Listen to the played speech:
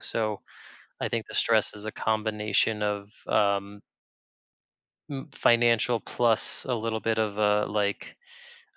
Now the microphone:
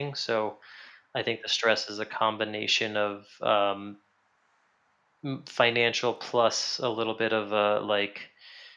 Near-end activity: none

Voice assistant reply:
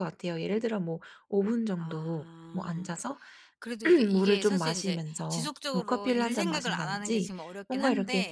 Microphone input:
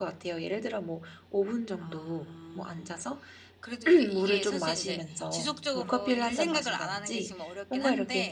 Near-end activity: none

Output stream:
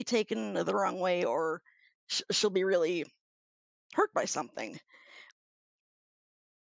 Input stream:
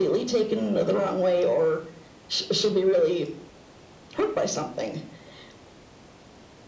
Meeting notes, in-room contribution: none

